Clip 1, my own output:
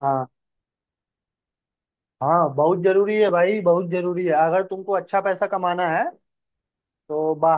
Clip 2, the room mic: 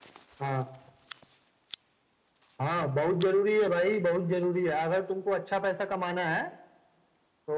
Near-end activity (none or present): none